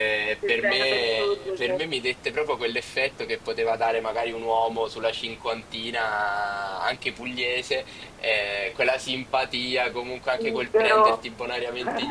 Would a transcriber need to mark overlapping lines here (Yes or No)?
Yes